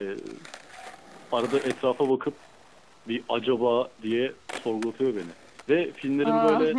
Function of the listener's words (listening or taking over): listening